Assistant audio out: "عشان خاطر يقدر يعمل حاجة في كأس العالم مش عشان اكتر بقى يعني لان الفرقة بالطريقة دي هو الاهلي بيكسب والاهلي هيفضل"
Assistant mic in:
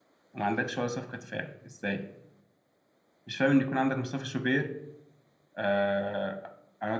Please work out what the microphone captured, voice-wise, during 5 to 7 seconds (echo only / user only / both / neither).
user only